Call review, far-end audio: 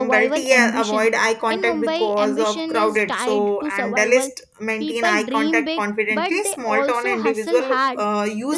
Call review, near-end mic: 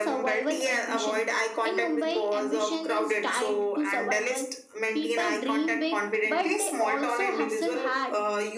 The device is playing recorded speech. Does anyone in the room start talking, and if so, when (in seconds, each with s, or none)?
none